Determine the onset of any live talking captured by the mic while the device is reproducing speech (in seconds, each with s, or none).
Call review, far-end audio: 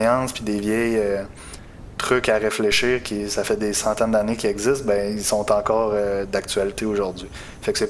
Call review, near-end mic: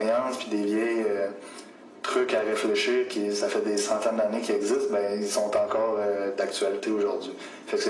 none